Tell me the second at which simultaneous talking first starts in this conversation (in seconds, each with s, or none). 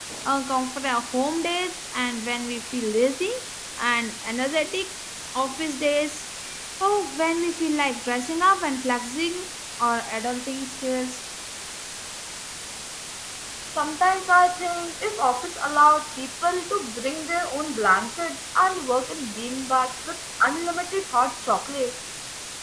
none